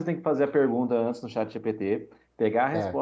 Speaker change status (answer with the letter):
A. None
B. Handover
A